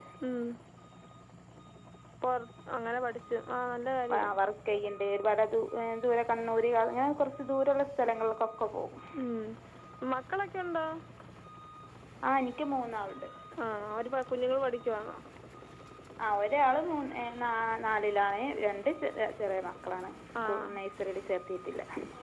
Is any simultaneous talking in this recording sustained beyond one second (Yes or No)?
No